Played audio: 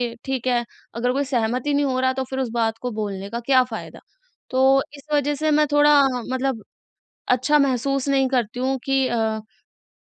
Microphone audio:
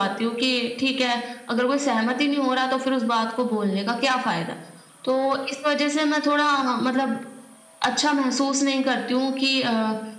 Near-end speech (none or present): none